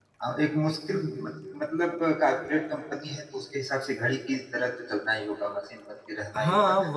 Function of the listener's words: taking over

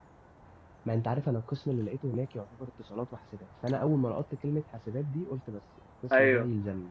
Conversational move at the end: taking over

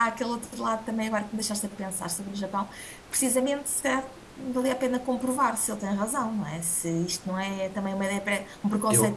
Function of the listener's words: taking over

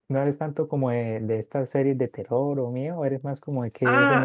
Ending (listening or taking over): taking over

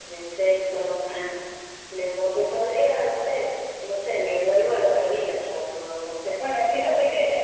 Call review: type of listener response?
taking over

